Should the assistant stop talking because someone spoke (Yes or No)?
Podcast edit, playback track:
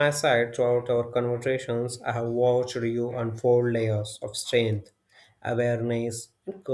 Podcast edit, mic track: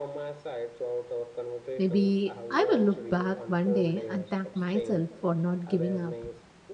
Yes